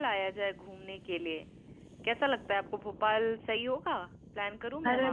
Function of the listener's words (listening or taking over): taking over